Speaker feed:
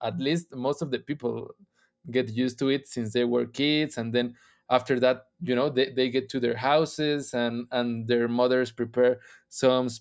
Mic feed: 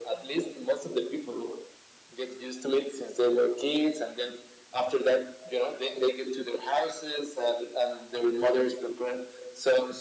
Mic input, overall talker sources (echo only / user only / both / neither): echo only